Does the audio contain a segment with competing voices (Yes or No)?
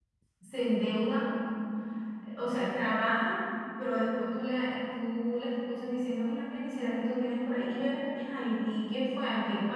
No